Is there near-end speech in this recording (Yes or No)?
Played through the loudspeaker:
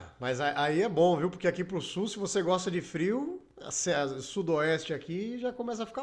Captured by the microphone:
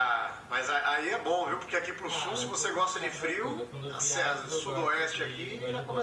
Yes